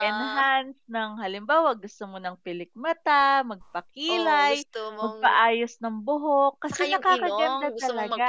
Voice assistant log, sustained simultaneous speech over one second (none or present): present